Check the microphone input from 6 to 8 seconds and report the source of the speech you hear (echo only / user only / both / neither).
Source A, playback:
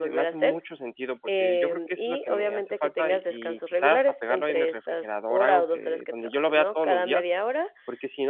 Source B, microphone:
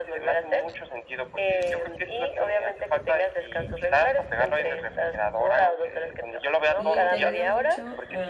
both